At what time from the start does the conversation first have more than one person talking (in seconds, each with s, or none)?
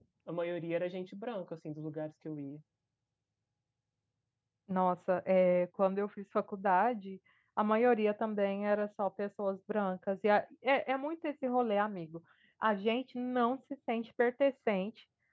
none